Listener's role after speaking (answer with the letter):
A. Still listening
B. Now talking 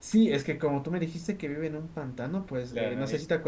A